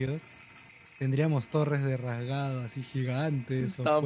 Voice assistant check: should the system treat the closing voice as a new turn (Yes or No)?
Yes